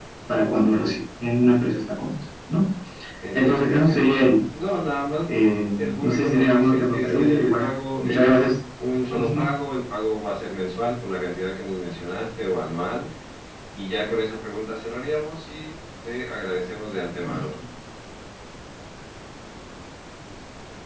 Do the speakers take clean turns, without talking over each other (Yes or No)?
No